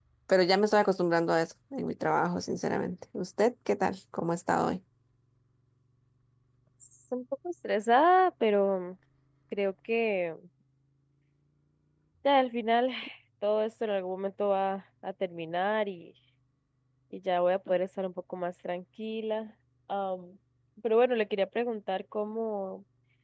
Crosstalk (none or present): none